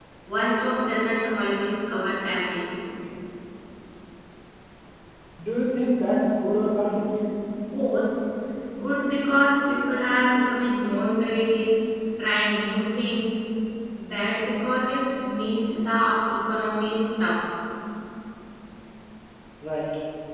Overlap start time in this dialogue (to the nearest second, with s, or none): none